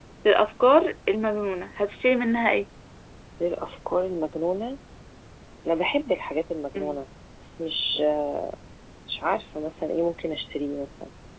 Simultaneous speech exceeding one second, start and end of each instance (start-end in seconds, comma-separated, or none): none